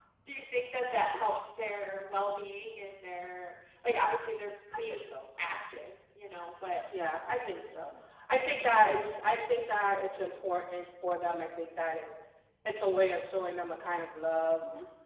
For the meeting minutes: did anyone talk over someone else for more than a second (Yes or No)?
No